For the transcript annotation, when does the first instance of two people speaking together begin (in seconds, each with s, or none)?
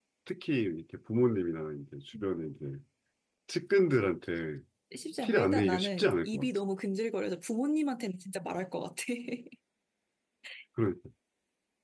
5.2 s